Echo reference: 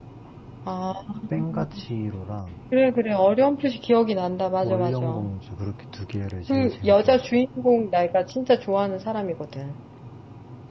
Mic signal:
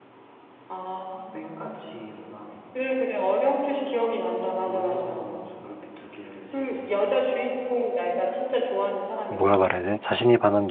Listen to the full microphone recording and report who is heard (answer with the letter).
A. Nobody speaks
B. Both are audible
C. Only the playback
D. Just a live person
B